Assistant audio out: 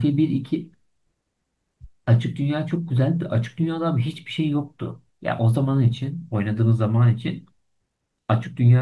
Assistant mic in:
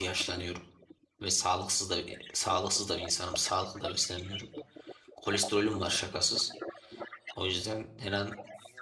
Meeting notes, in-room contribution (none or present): present